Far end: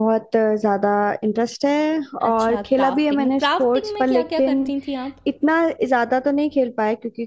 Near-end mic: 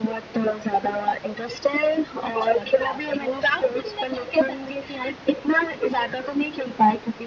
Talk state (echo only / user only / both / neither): echo only